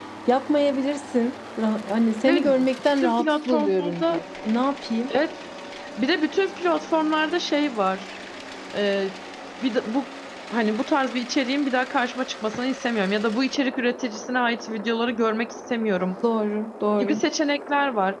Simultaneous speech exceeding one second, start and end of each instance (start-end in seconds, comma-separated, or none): 2.2-4.2